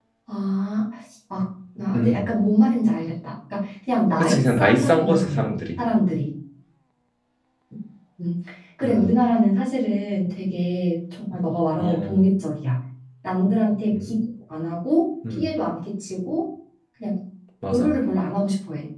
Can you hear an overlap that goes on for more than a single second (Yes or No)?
Yes